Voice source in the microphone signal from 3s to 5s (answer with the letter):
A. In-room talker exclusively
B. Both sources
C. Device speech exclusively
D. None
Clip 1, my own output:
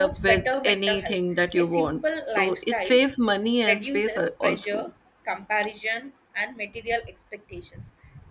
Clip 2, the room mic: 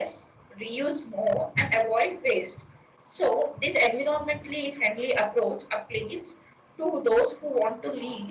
A